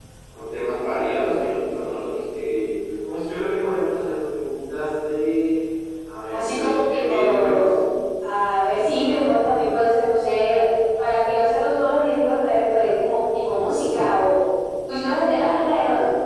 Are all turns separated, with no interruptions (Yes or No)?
No